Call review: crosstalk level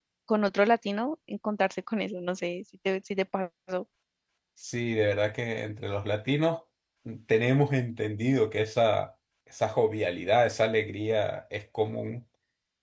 none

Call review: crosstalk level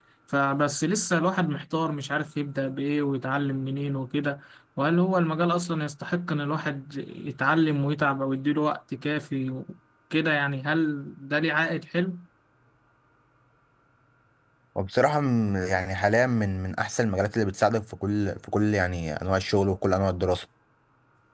none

